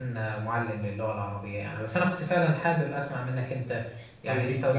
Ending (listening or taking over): listening